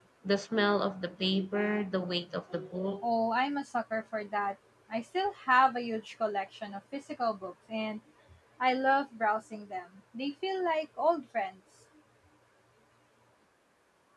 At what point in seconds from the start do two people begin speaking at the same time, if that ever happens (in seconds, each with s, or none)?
none